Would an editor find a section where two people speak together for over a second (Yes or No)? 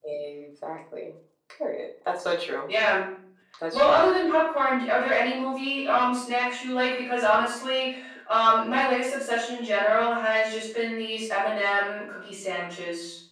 No